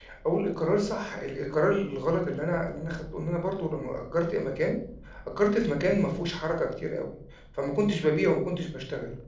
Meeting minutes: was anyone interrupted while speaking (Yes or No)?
No